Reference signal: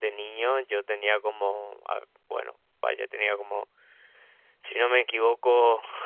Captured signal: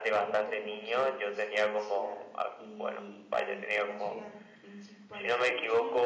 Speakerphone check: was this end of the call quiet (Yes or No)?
No